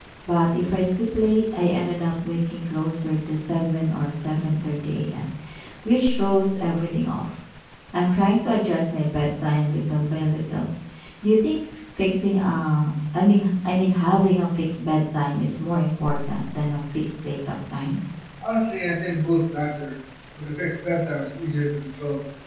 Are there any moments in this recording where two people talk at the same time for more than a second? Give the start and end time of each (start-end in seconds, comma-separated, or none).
none